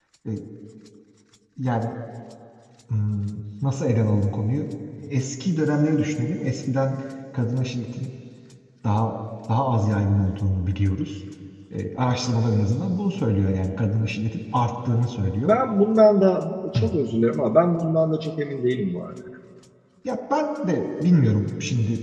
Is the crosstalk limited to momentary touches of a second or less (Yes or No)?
Yes